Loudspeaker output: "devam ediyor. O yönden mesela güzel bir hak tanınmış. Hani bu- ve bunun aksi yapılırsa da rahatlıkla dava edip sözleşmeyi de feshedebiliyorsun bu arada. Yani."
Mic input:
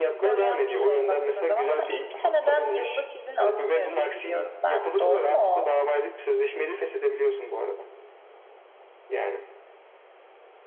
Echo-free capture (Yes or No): No